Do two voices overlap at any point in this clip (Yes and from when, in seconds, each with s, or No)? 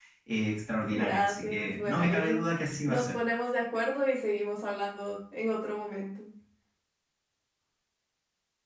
Yes, from 0.9 s